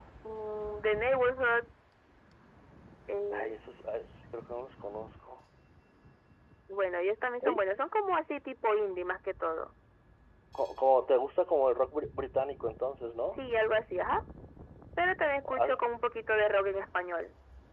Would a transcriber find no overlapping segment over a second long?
Yes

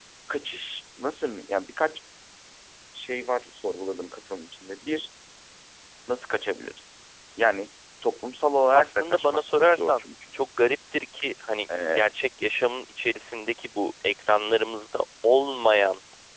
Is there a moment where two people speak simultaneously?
Yes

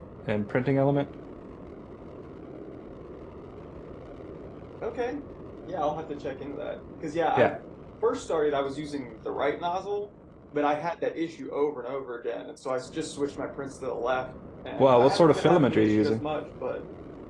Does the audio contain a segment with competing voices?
Yes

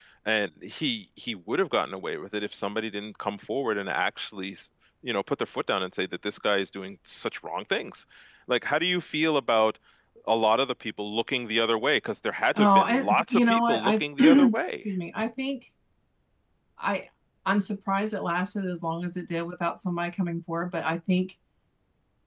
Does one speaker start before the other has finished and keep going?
Yes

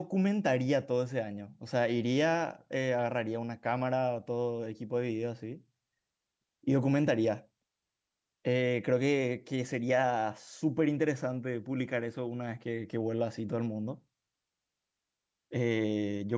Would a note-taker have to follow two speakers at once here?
No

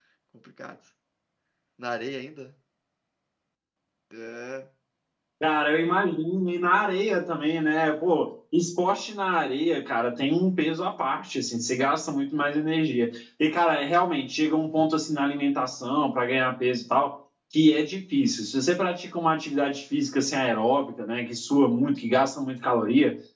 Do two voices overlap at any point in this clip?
No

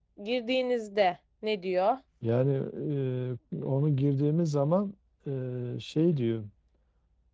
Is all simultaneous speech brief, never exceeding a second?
Yes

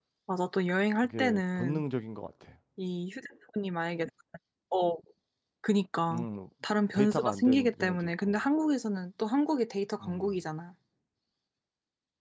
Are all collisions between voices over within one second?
No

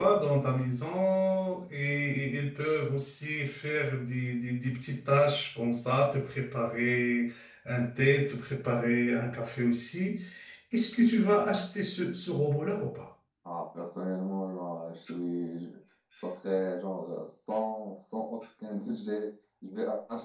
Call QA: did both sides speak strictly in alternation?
Yes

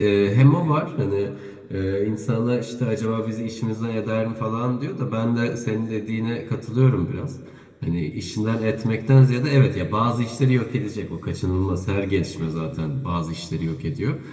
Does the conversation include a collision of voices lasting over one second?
No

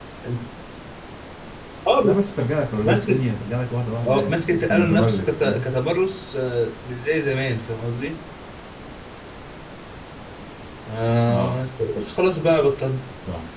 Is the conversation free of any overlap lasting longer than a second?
No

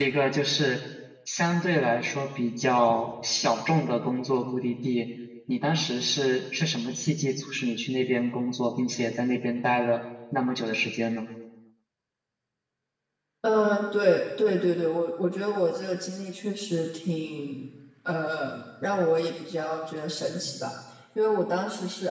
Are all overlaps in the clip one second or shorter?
Yes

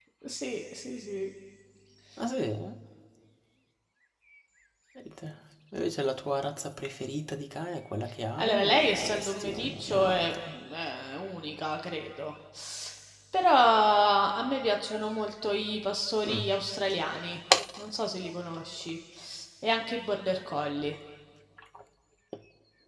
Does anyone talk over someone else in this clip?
Yes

